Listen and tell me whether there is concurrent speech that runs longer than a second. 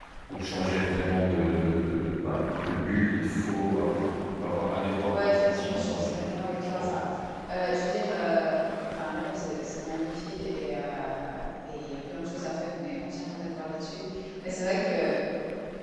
Yes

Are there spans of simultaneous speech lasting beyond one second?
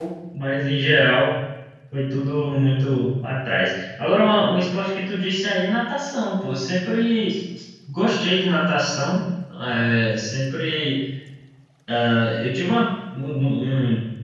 No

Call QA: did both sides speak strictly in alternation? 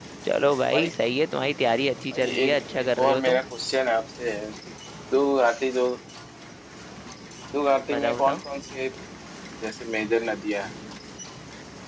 No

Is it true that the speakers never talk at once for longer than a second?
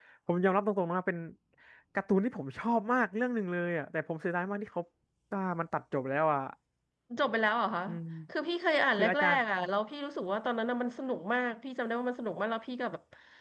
Yes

